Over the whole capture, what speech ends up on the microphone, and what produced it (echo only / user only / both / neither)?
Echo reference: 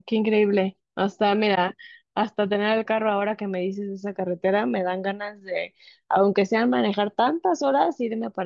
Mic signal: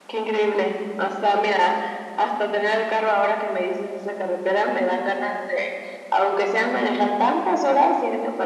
echo only